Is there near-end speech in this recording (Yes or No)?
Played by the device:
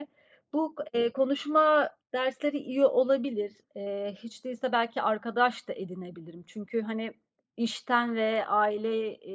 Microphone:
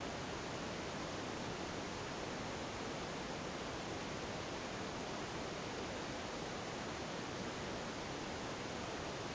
No